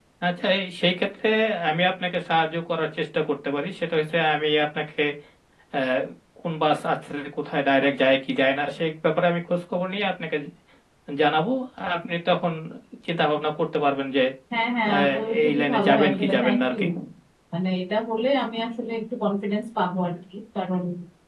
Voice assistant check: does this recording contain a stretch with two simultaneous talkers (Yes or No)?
Yes